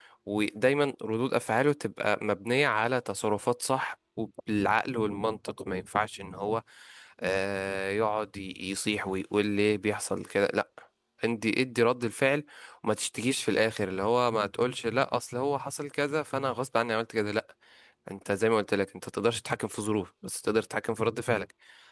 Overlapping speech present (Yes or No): No